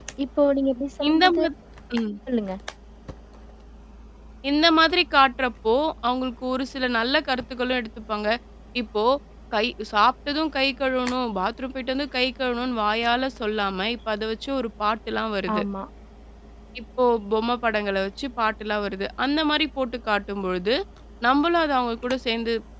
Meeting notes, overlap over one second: none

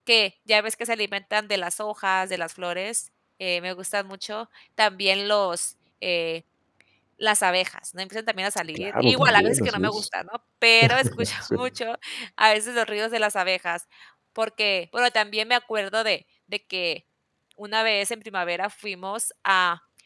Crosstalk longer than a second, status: present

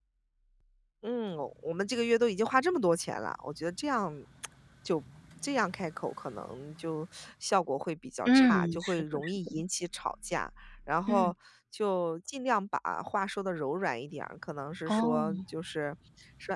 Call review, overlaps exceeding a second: present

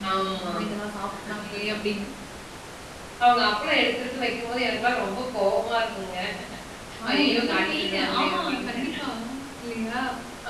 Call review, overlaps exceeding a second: present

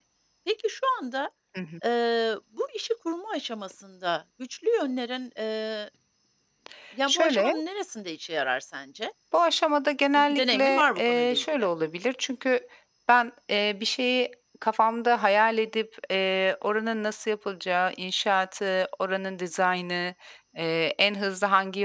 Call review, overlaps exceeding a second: present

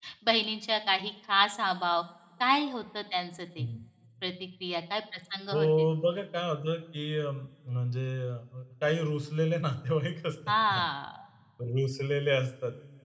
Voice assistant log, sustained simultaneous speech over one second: none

